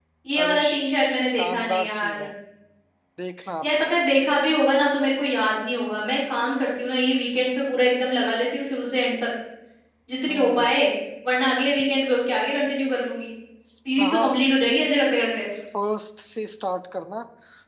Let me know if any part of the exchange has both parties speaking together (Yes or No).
Yes